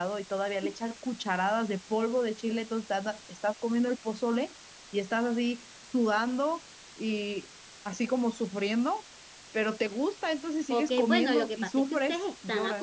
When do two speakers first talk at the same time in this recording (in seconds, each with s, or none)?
10.7 s